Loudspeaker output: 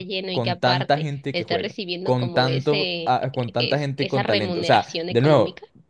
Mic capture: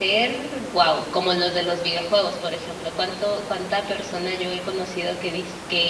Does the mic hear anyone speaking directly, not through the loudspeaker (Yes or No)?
Yes